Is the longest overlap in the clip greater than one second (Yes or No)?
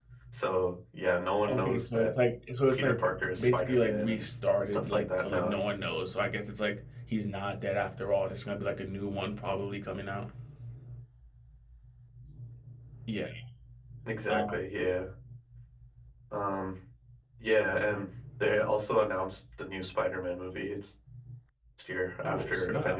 Yes